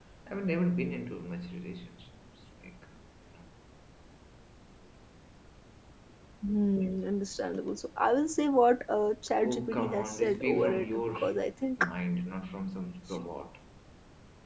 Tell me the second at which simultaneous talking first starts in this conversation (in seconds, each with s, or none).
9.4 s